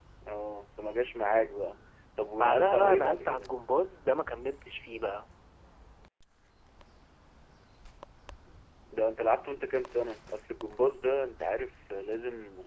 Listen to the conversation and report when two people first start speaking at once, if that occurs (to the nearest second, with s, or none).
2 s